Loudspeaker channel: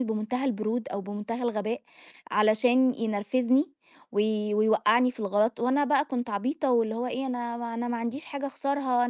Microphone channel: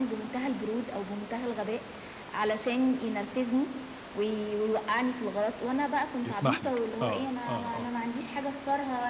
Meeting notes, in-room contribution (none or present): present